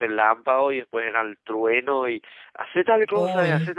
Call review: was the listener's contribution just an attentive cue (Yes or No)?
Yes